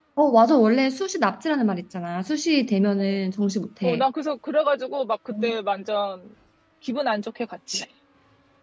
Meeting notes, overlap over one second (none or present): none